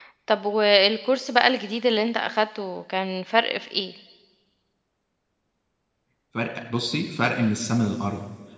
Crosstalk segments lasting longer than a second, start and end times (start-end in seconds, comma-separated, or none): none